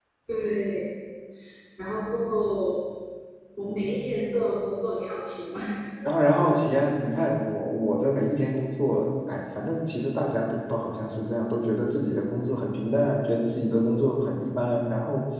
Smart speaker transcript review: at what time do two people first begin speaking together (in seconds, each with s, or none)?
none